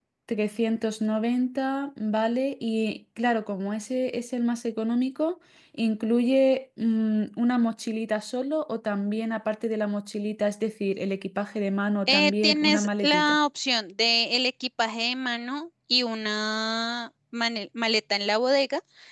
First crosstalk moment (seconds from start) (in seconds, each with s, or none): 12.1 s